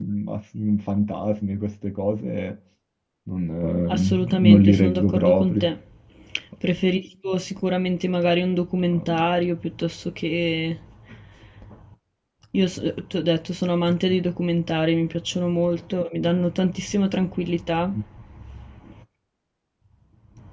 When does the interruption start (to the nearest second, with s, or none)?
4 s